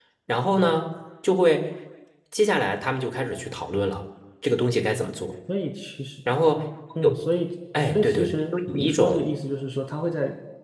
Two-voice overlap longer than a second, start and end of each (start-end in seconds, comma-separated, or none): 7.8-9.3